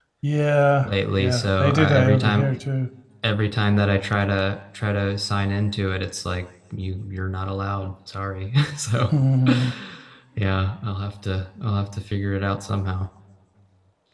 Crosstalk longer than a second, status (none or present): present